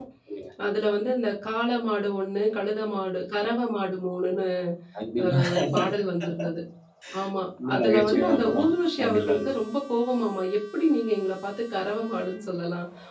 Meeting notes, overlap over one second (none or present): present